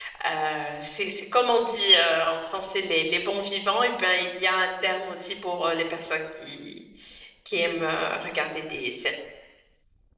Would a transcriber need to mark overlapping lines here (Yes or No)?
No